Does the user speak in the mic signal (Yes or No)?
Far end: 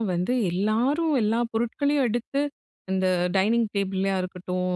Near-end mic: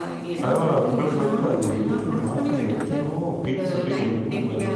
Yes